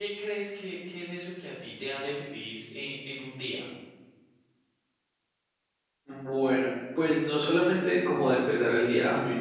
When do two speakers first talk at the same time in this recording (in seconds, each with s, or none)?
none